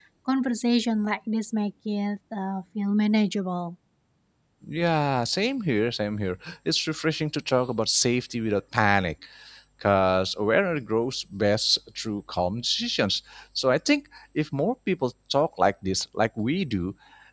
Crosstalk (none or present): none